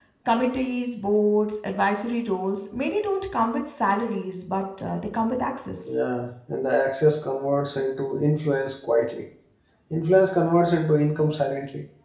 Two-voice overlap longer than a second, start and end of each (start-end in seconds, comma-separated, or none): none